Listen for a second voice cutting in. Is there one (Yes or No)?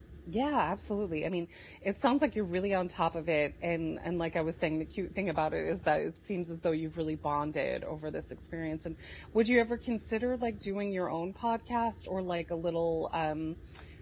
No